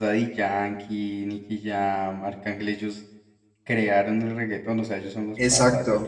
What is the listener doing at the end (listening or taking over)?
taking over